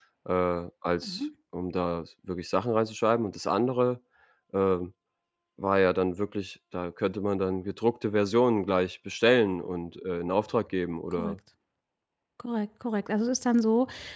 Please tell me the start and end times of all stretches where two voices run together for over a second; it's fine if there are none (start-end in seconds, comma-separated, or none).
none